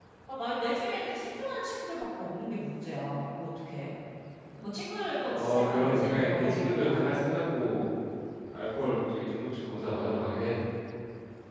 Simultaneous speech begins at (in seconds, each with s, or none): 5.2 s